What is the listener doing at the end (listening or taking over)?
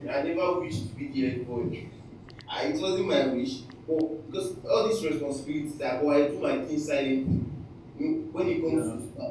listening